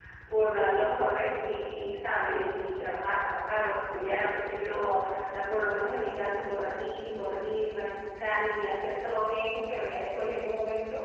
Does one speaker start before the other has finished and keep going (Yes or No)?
No